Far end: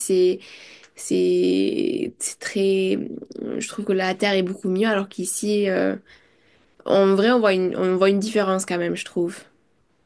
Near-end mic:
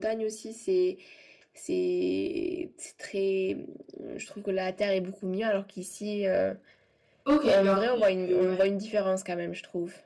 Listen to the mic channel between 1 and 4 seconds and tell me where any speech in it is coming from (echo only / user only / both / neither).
echo only